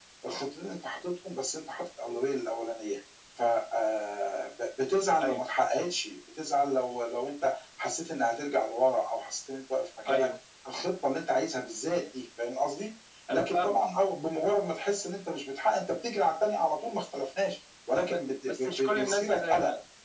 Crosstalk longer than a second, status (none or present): present